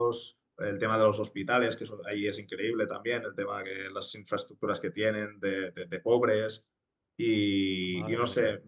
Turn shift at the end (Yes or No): No